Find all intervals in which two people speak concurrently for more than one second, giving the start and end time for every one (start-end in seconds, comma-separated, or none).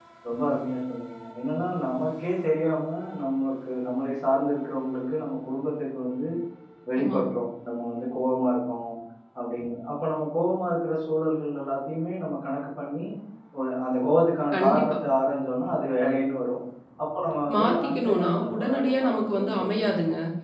17.5-19.9